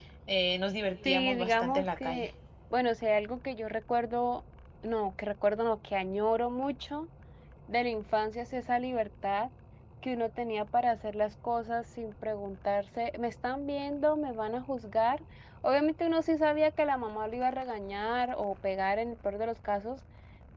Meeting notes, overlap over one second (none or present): present